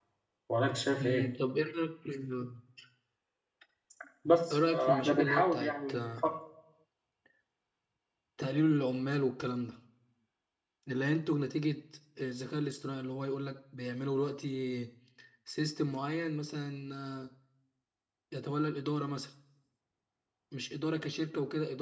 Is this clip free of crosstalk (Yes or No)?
No